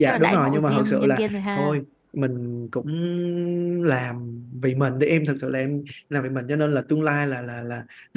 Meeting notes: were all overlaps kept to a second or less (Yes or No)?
No